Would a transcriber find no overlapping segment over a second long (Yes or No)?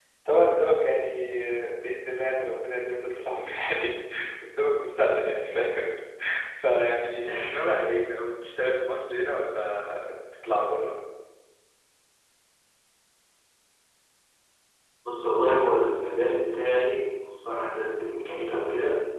Yes